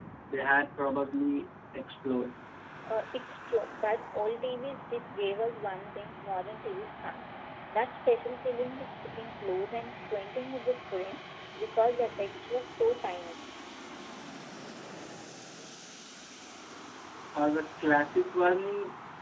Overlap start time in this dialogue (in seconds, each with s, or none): none